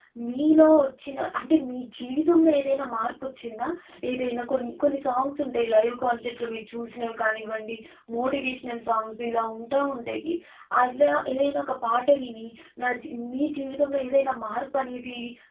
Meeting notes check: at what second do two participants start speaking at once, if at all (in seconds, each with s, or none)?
none